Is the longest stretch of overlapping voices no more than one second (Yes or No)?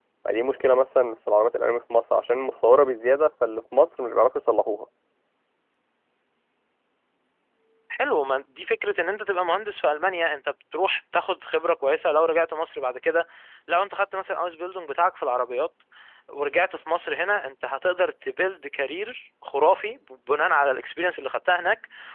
Yes